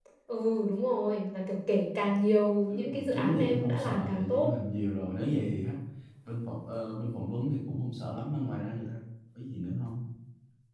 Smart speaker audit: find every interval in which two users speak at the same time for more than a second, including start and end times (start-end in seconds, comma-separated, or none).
2.7-4.5